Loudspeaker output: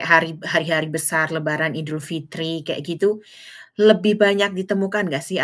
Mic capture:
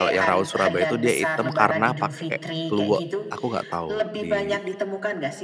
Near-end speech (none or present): present